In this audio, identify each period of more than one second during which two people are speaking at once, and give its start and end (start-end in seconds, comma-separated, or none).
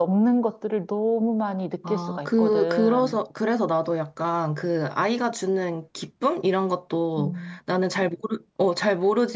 1.9-3.2